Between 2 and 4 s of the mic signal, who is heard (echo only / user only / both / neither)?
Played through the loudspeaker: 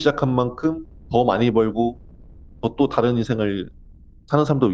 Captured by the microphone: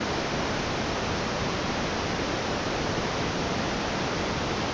neither